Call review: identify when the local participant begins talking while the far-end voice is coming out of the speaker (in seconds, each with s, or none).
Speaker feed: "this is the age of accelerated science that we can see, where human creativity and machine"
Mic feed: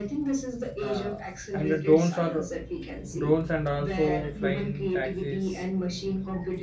0.8 s